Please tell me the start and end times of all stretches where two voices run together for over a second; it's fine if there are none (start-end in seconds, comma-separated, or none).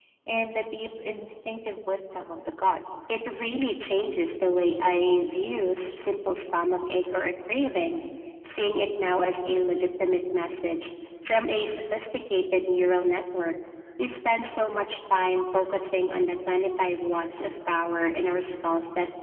none